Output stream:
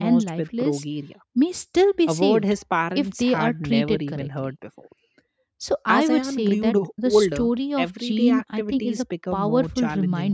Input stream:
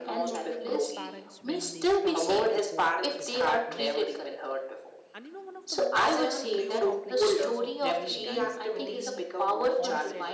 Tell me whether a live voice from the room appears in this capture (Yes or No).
Yes